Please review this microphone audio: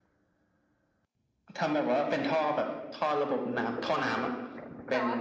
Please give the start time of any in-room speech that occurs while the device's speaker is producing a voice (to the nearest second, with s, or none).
4 s